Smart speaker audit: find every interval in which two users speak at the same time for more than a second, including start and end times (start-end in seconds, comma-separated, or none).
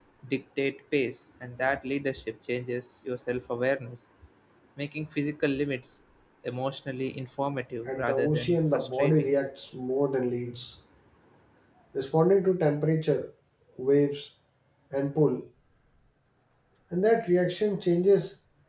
7.9-9.3